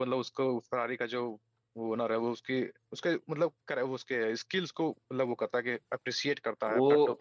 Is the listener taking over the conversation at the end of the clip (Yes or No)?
Yes